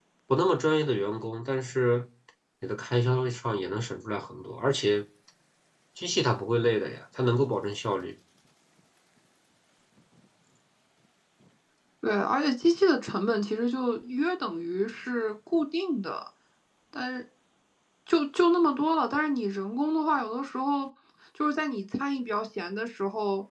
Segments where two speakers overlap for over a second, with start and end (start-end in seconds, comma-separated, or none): none